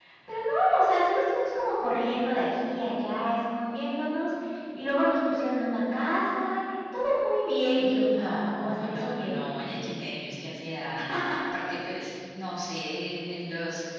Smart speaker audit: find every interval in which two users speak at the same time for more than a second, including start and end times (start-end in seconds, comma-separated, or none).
8.1-9.4